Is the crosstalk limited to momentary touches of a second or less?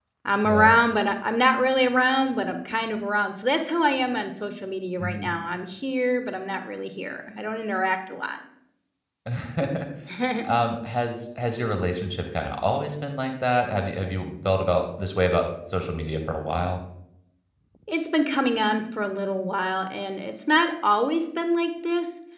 Yes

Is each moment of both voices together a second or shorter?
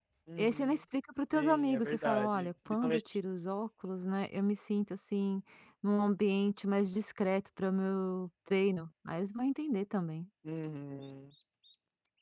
No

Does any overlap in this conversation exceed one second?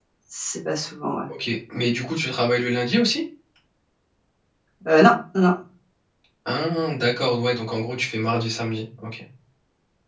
No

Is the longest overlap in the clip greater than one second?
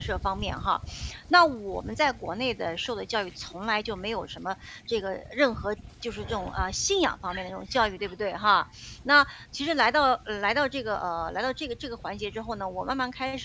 No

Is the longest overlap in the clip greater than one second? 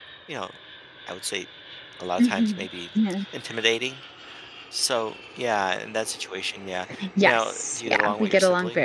Yes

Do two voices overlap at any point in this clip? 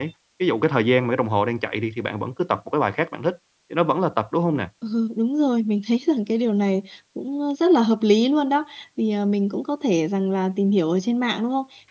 No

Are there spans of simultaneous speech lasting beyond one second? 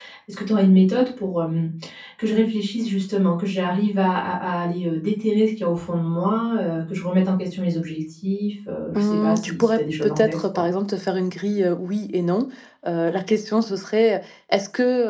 Yes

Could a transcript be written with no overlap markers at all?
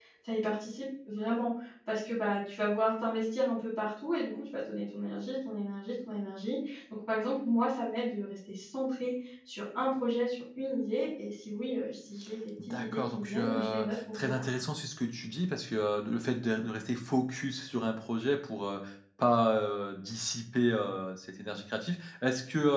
No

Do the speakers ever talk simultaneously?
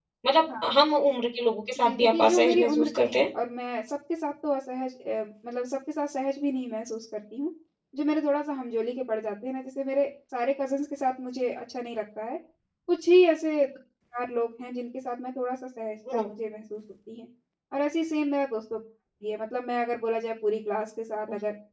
Yes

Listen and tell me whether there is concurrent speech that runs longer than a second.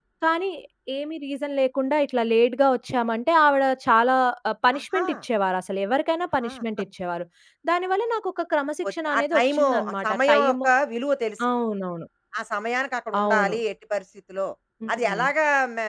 Yes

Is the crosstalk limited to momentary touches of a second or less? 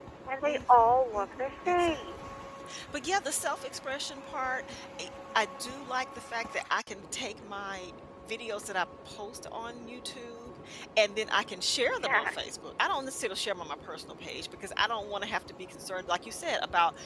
No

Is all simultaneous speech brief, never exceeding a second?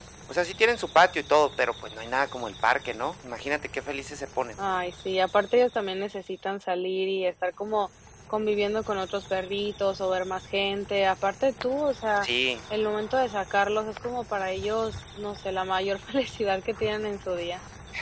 Yes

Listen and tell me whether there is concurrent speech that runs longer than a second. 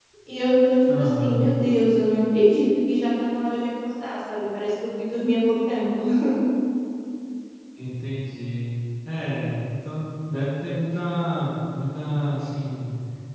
No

